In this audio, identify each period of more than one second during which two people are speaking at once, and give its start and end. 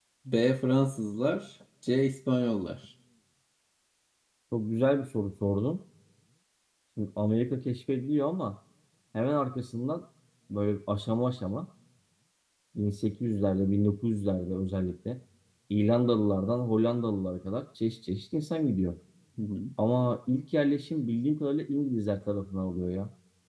none

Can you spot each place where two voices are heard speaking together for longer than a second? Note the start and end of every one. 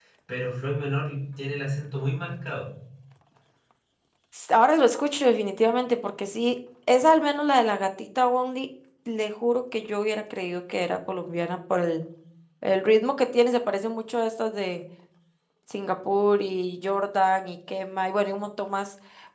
none

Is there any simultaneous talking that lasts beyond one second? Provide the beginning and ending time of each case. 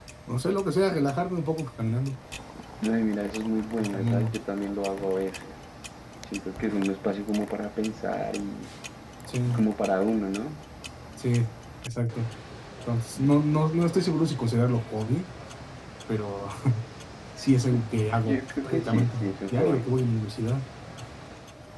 18.2-19.8

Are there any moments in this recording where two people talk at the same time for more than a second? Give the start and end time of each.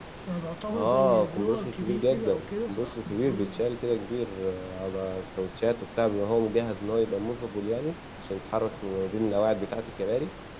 0.7-3.5

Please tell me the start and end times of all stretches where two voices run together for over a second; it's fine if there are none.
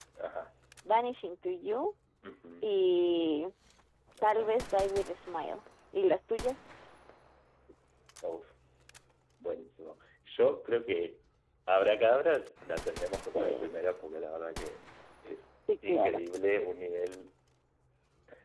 none

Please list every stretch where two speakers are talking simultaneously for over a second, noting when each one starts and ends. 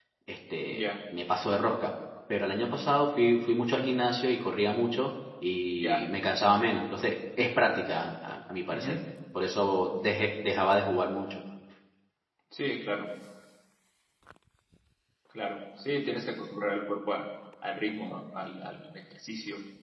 none

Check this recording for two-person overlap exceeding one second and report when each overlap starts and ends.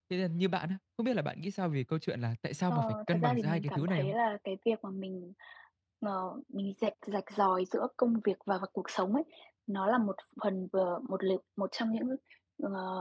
2.7-4.1

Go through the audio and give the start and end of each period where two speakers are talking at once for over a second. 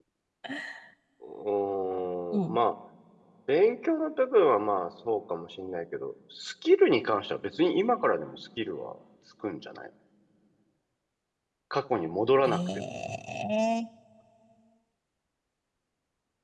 none

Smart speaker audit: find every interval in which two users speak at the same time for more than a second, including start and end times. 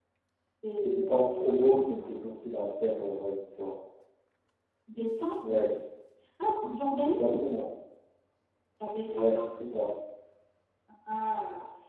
0.8-2.1

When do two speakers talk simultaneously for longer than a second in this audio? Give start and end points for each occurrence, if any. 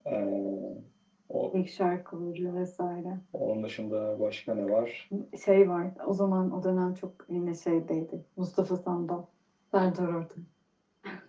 none

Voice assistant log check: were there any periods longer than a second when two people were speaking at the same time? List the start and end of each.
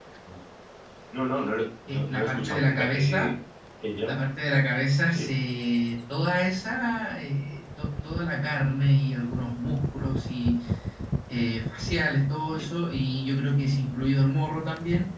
1.9-3.3

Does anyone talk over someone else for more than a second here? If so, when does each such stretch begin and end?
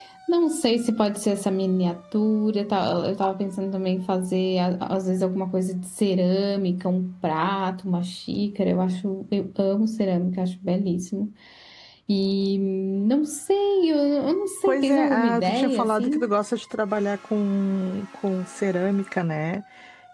14.7-16.3

